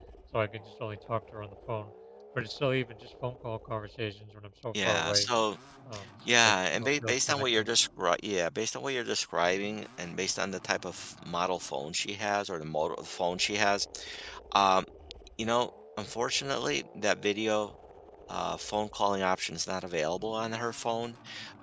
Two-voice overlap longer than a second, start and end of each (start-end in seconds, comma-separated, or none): 6.3-7.7